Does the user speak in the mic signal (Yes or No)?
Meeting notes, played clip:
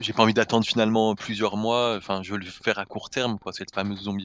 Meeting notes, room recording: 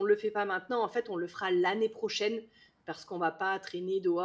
Yes